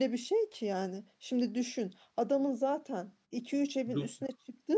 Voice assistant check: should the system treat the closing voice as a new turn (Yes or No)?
No